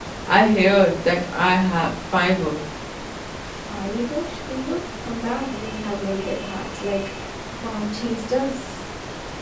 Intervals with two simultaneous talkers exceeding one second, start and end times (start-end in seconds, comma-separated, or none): none